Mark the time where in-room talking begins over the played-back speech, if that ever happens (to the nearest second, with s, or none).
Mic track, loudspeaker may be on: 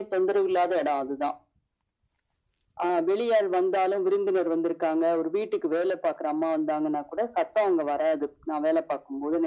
none